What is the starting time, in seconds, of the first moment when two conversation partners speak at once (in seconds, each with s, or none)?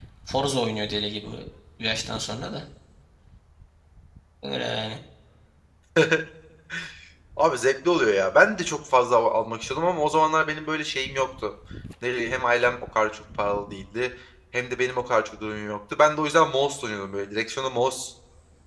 none